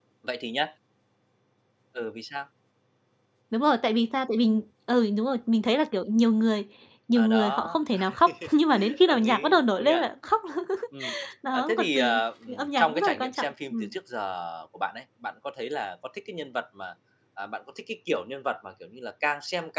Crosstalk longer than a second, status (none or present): present